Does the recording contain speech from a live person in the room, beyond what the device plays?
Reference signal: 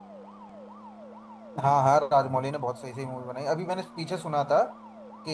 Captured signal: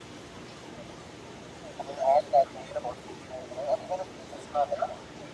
No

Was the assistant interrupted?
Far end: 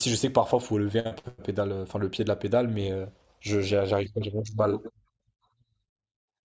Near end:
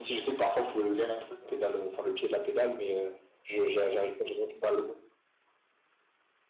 No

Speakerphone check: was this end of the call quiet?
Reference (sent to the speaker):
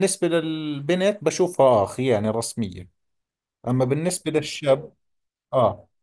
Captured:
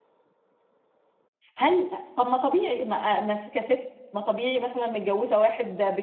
No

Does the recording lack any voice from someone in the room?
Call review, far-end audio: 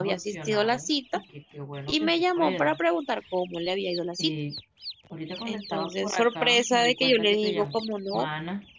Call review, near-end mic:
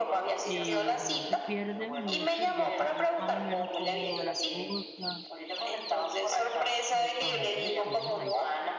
No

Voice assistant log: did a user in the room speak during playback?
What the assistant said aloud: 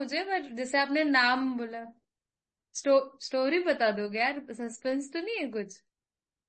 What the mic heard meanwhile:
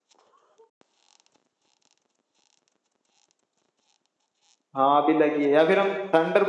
Yes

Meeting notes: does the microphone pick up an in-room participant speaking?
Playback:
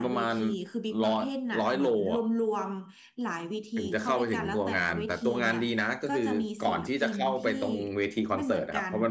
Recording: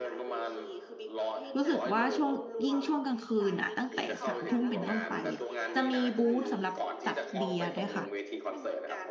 Yes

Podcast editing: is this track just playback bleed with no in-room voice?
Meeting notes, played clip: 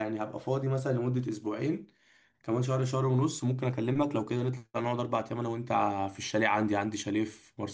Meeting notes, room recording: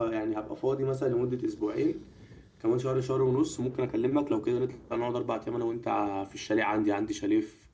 Yes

